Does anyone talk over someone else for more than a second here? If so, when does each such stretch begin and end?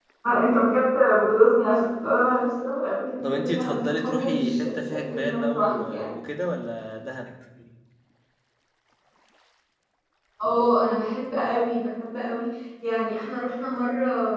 3.2-6.1

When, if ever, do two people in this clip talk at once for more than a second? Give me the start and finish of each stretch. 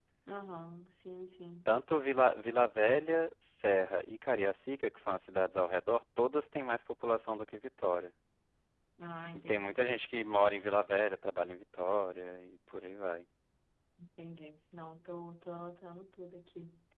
none

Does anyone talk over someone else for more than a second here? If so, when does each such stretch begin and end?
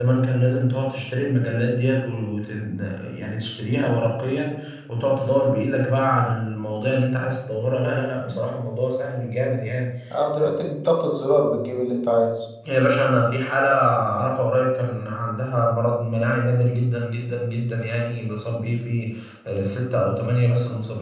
none

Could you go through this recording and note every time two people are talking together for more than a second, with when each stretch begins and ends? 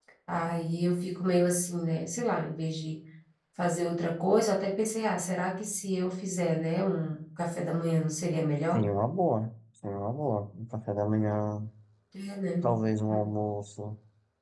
none

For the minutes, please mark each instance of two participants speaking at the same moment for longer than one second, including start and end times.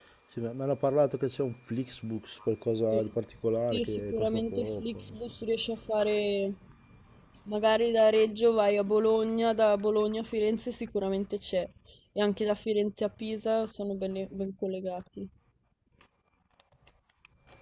3.7-5.2

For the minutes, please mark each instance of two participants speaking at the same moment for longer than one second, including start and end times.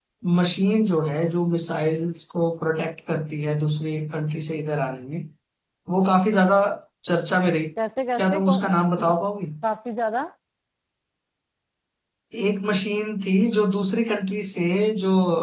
none

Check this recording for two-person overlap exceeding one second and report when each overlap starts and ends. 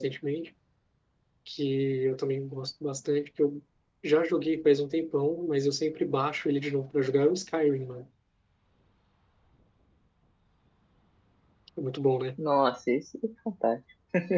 none

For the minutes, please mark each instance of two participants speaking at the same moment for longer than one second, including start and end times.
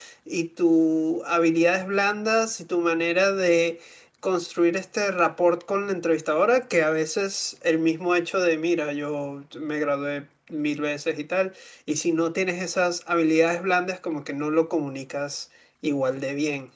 none

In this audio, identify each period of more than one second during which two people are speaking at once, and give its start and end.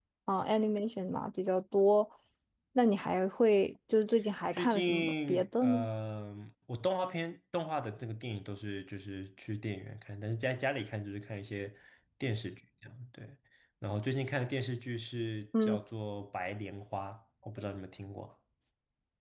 4.5-5.9

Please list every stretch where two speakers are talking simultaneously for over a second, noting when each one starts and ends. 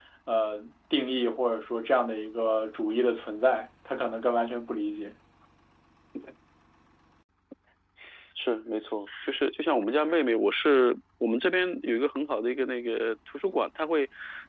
none

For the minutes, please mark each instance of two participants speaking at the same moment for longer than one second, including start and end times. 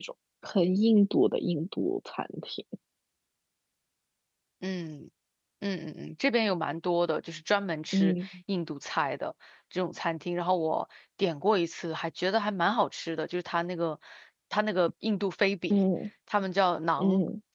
none

